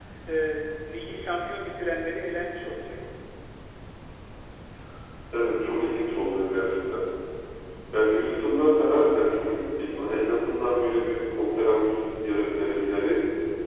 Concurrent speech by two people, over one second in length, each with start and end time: none

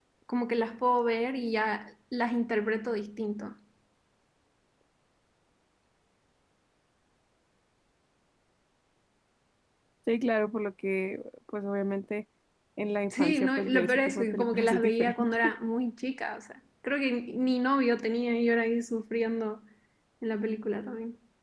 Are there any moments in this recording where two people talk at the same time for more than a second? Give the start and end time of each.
13.1-15.5

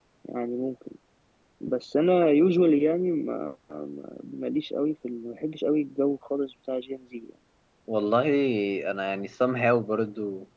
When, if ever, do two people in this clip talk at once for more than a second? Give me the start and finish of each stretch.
none

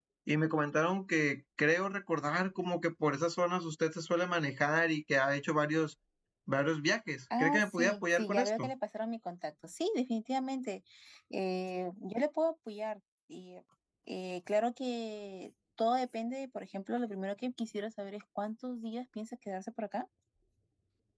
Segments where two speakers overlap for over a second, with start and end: 7.4-8.7

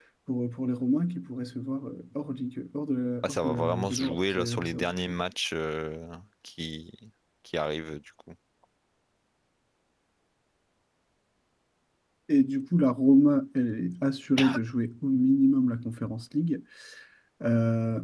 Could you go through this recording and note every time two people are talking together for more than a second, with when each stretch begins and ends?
3.2-5.0

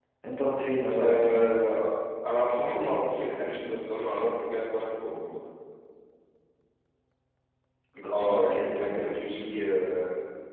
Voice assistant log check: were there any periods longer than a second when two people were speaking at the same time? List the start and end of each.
8.1-9.4

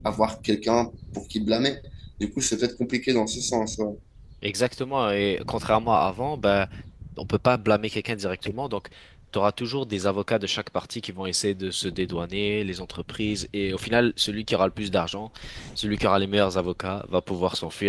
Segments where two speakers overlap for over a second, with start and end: none

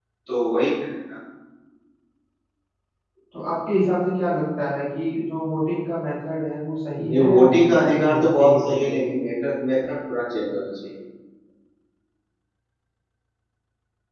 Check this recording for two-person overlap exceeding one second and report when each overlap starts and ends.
7.1-9.2

